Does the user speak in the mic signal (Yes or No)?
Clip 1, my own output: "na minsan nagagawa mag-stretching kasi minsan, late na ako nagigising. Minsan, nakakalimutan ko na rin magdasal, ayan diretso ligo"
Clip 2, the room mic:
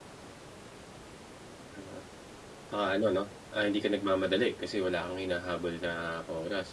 Yes